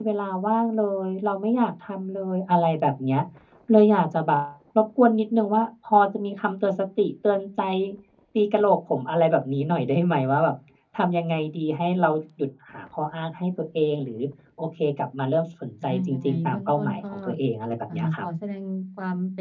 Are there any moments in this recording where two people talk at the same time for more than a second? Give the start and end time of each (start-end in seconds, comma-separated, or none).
15.8-17.2